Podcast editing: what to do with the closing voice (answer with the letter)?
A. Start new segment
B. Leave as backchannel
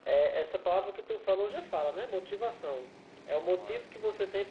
B